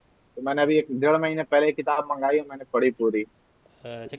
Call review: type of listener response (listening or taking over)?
taking over